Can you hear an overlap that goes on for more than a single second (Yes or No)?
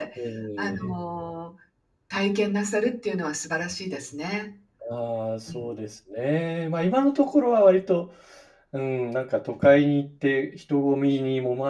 No